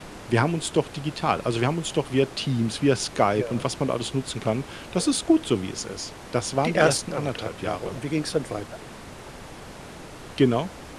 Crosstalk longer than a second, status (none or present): present